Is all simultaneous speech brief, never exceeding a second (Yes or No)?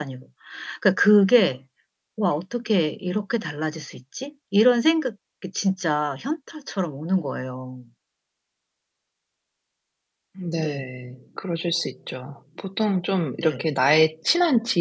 Yes